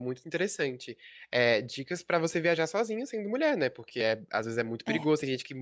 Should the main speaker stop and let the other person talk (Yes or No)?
No